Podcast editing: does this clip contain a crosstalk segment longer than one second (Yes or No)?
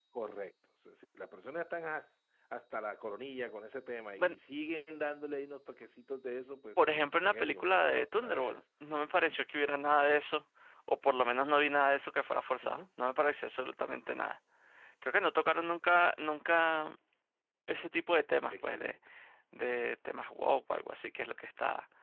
Yes